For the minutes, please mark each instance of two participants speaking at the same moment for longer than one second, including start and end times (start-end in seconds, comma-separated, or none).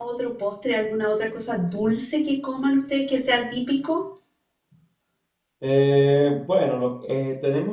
none